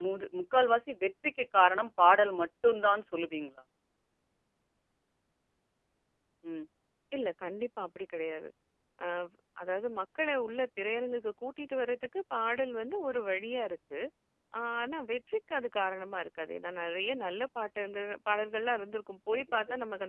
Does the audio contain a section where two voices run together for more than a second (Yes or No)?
No